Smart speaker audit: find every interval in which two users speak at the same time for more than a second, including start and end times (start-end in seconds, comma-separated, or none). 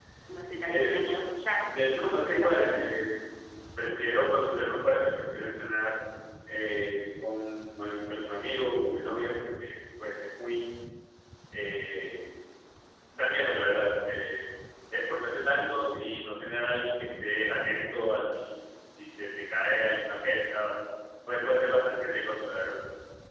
1.6-2.8